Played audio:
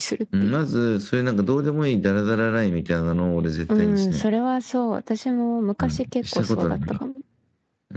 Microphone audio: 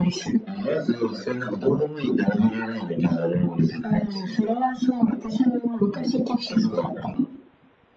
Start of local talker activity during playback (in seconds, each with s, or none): none